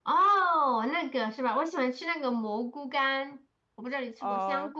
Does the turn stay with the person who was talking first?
No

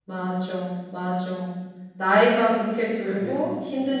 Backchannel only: Yes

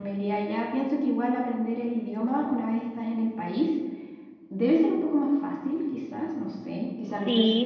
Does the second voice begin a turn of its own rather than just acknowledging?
Yes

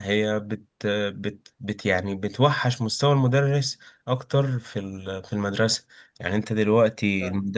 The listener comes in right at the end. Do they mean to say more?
No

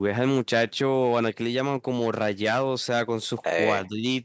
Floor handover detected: No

